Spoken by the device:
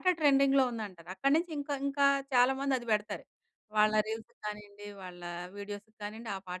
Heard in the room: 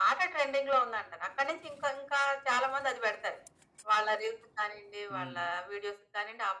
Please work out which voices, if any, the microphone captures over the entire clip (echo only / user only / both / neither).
both